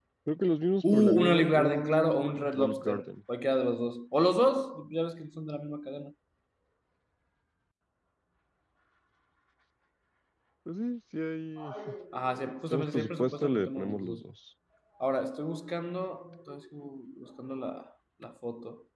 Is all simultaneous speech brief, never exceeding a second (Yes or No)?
No